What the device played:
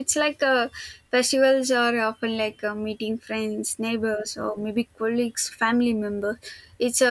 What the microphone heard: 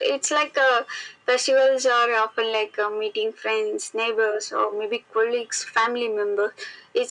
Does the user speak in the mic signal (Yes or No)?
No